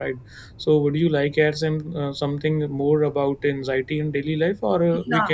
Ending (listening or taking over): listening